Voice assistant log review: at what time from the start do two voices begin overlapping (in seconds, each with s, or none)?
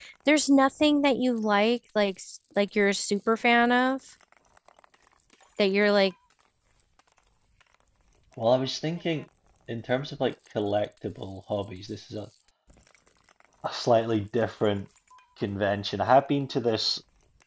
none